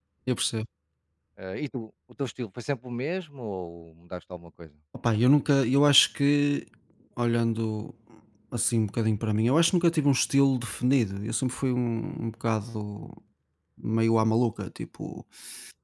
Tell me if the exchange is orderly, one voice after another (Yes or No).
Yes